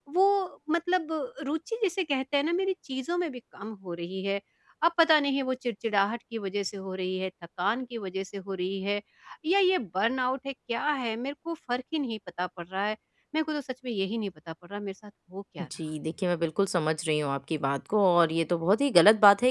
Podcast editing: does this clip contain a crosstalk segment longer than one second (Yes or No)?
No